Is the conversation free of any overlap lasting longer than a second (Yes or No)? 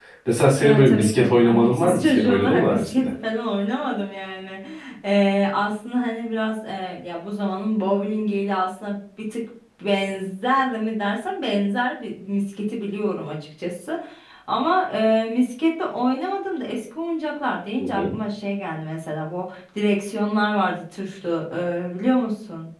No